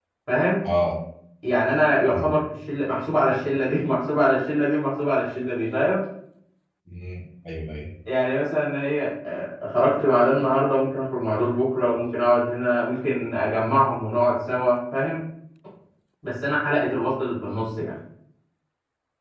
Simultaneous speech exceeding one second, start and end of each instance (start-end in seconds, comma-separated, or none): none